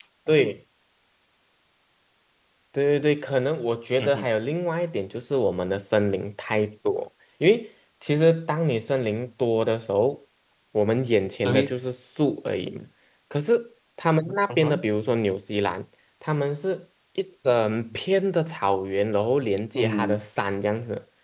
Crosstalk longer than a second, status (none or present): none